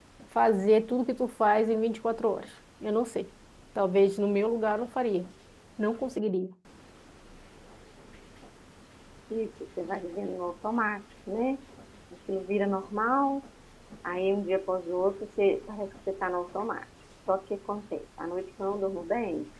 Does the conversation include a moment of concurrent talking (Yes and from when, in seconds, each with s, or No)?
No